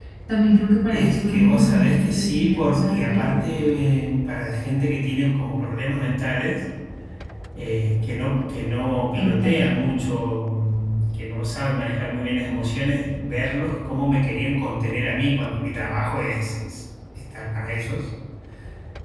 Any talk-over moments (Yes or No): Yes